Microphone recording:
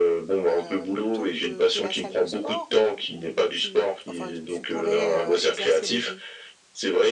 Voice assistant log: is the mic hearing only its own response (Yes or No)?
No